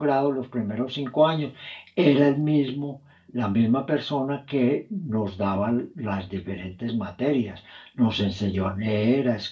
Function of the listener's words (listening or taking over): listening